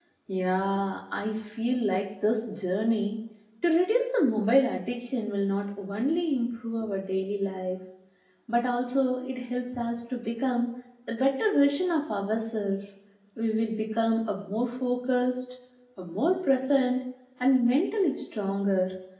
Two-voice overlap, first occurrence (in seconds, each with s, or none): none